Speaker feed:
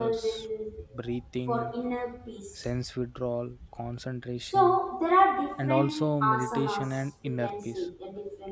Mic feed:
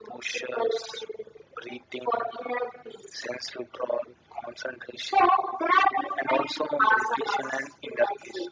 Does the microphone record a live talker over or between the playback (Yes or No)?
No